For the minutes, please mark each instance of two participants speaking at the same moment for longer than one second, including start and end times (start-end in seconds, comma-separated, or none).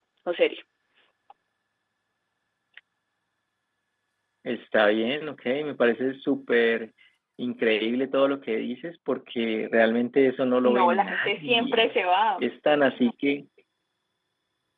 10.6-11.9